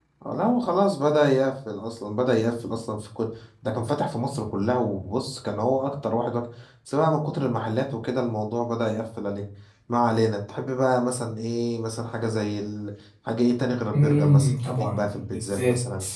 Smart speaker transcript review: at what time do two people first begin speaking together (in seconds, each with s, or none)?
13.9 s